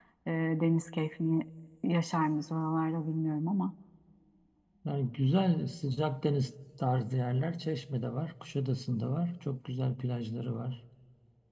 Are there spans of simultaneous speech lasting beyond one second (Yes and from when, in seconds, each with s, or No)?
No